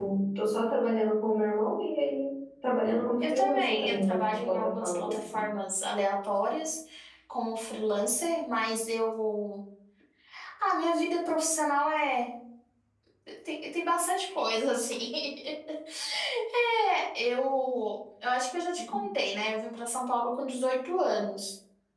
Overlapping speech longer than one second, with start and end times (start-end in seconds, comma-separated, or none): 3.2-5.4